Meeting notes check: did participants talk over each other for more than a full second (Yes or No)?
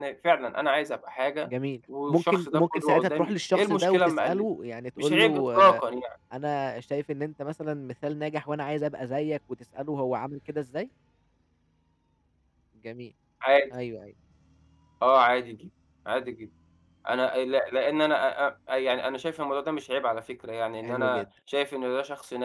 Yes